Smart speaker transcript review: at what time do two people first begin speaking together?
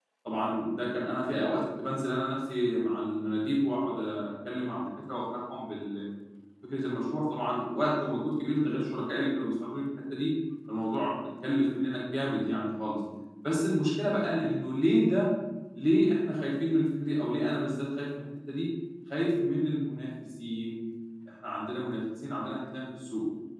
none

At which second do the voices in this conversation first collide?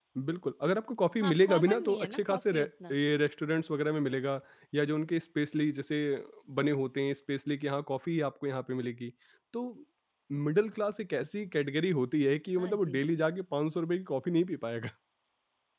1.2 s

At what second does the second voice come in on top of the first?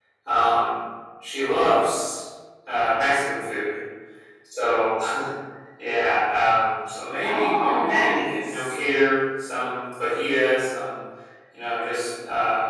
7.2 s

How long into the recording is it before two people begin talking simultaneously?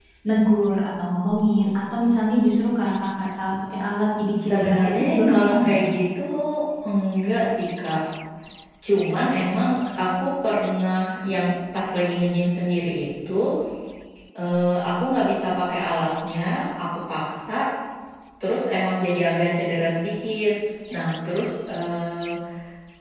4.3 s

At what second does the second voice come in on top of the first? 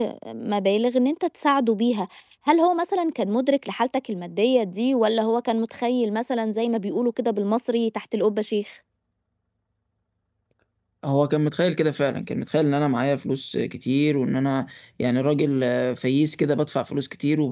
none

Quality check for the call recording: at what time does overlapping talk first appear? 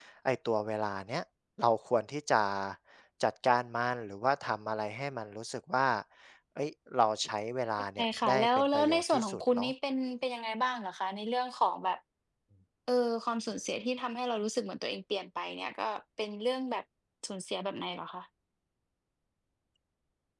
8.0 s

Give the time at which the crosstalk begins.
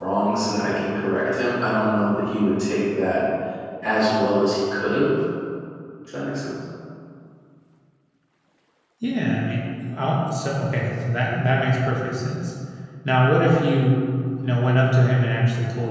none

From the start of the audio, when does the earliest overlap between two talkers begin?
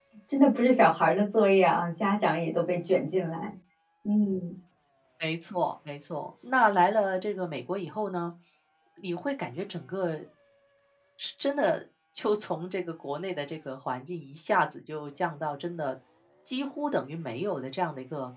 none

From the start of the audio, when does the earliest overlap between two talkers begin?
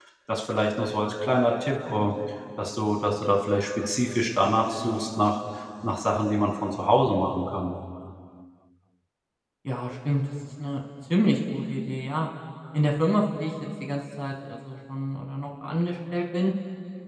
none

